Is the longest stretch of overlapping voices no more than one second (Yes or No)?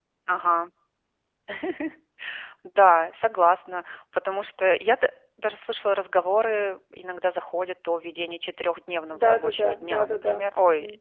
No